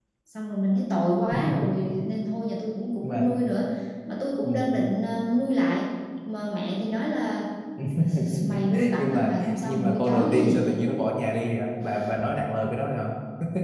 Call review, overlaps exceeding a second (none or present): present